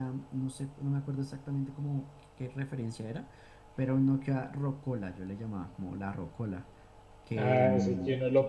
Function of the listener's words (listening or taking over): taking over